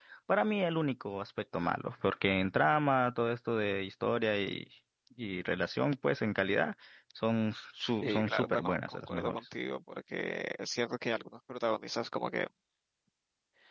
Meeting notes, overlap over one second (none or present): present